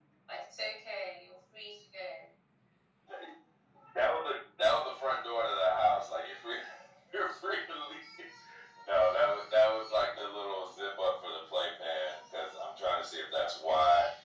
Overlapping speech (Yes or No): No